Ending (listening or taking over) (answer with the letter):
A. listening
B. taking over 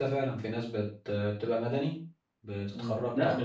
B